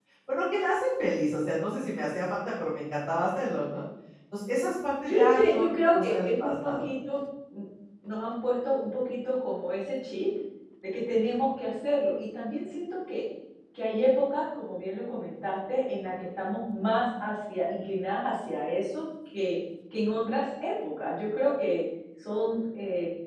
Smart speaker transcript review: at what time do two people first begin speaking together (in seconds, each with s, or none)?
5.1 s